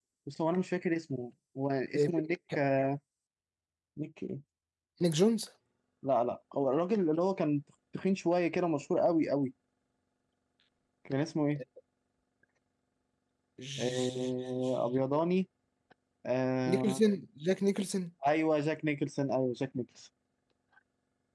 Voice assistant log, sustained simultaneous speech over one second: present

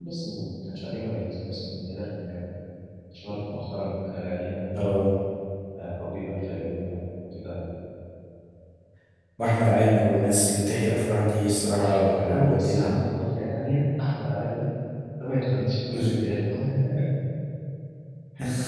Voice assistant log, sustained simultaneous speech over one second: present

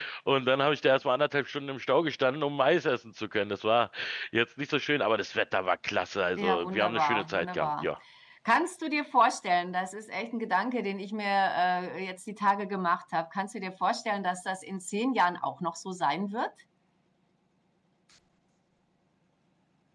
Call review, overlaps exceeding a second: present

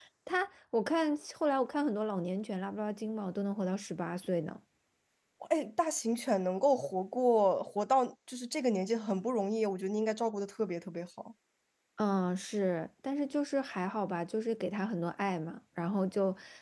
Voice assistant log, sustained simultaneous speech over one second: none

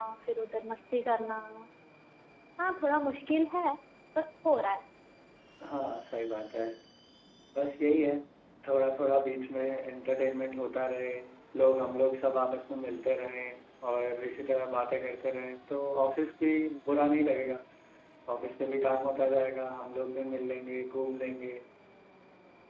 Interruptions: none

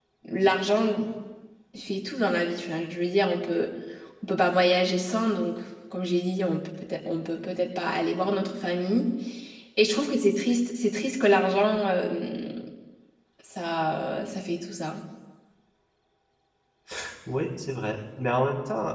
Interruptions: none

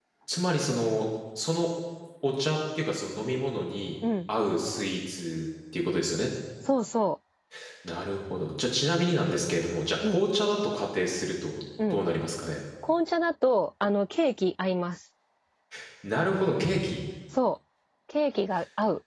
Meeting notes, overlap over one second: none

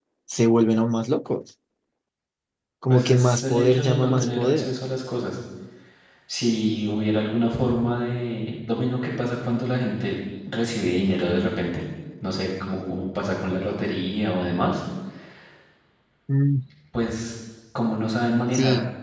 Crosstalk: present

